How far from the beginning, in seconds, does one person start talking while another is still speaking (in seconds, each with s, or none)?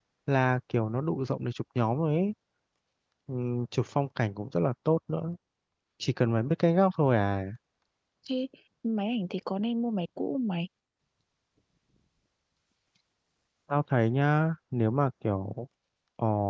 none